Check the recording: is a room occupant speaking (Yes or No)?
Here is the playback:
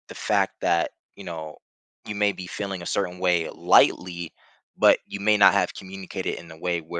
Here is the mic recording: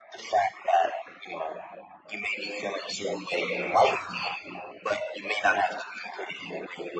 No